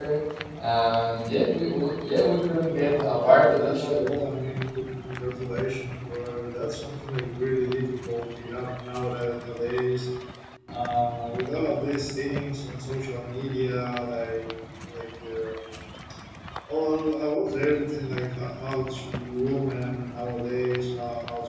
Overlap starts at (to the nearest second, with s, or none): 3 s